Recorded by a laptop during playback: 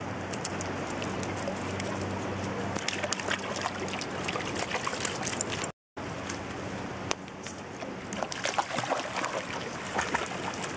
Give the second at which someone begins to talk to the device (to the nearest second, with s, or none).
none